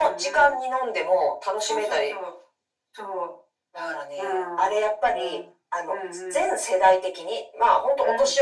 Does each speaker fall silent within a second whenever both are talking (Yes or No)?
No